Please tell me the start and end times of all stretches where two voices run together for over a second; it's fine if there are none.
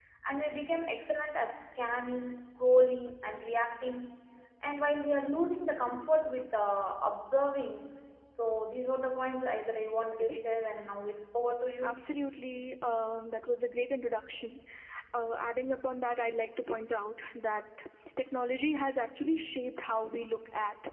none

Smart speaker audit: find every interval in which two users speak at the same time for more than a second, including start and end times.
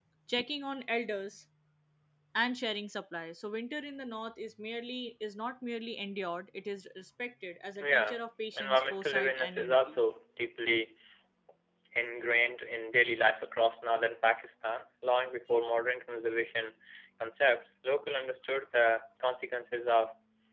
8.6-10.0

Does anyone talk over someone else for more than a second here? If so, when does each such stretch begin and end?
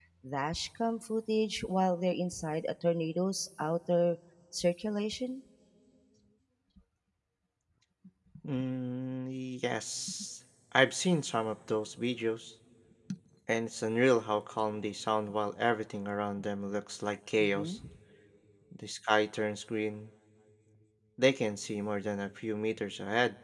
none

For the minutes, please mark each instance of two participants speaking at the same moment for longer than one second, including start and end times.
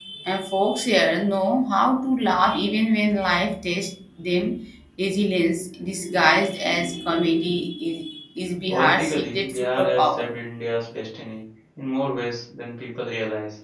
8.7-10.3

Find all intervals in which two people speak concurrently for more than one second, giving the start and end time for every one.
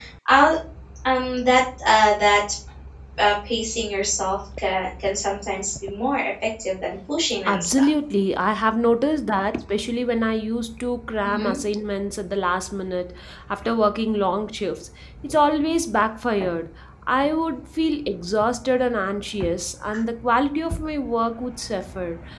none

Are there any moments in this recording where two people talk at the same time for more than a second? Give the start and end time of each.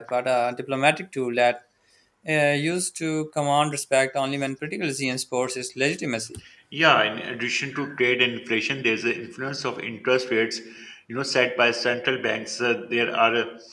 none

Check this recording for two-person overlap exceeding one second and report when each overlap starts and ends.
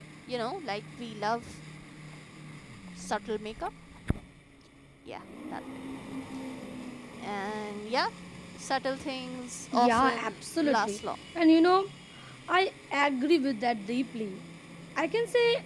9.7-11.1

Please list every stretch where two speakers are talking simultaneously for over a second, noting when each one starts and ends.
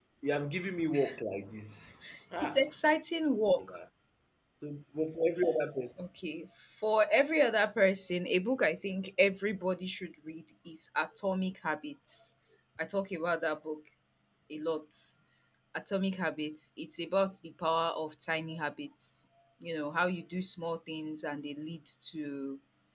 none

